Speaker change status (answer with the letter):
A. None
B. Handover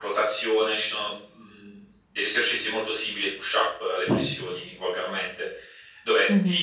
A